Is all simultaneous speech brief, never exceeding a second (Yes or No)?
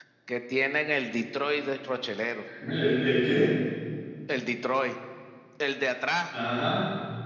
Yes